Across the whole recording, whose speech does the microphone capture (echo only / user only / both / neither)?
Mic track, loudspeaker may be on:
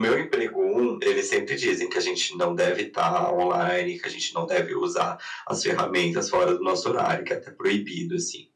echo only